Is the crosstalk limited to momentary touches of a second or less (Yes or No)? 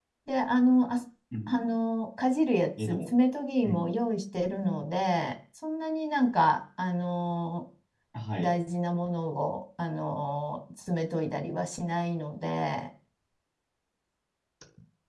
Yes